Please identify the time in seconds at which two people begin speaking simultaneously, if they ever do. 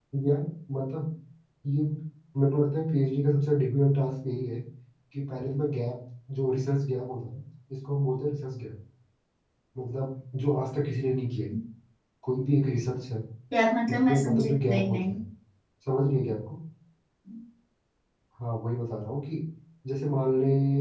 13.9 s

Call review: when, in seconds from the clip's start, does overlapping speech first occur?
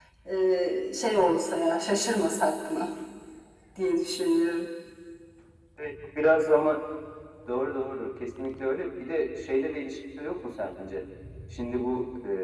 none

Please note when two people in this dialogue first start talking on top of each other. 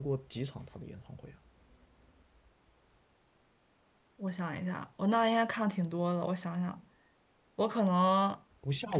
none

